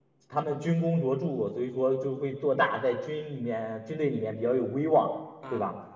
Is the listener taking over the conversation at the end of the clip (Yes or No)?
No